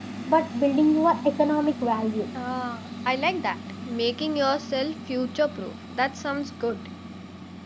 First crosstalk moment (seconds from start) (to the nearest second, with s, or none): none